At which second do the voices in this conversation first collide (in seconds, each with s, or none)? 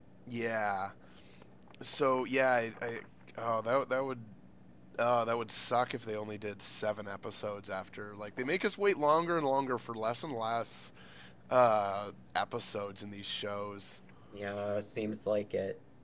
none